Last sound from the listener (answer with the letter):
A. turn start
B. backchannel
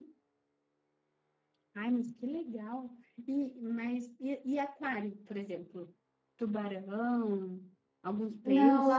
A